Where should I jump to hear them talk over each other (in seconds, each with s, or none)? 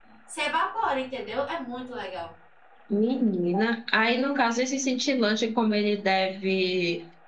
none